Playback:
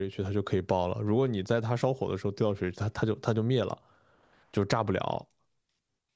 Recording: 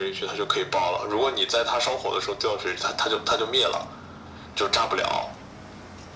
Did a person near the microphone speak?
No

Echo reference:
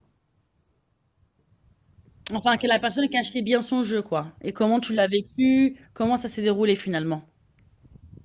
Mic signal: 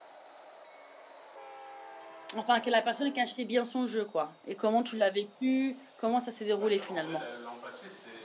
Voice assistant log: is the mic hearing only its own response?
No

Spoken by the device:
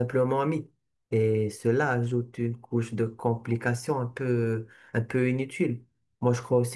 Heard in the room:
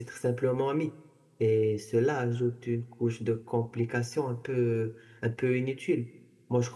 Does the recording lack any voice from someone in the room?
Yes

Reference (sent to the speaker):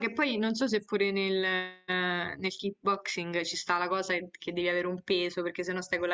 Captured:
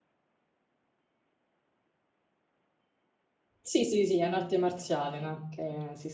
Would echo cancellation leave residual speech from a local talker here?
Yes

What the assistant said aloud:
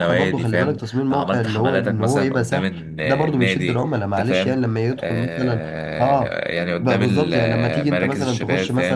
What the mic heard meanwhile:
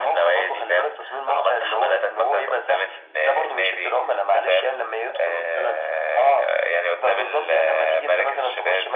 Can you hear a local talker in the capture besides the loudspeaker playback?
No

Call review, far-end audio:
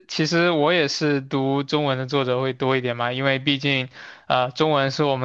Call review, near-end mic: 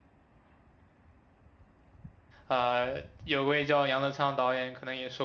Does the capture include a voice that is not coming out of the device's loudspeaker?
Yes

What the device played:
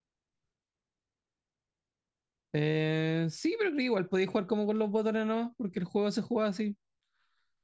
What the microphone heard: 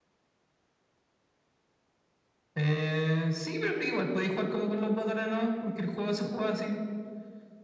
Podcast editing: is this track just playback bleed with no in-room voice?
Yes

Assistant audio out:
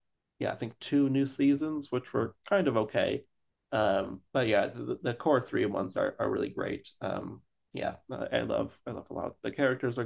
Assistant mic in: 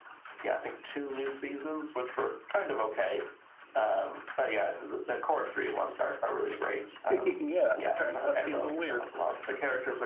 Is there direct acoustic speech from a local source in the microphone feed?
Yes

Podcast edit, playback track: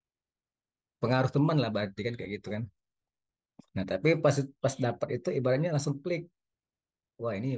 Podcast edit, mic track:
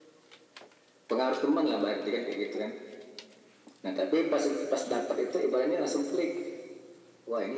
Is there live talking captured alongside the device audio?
No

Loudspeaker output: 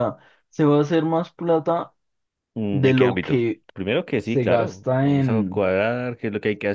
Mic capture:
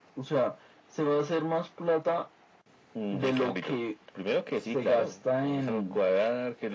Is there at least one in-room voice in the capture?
No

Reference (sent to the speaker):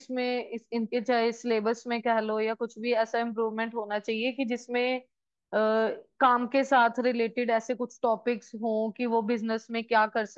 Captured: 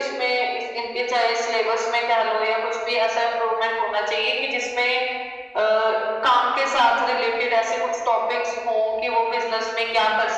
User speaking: No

